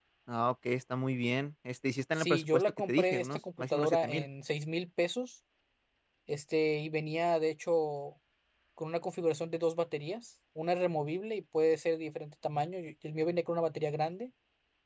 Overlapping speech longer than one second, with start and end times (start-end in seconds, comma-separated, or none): 2.1-4.3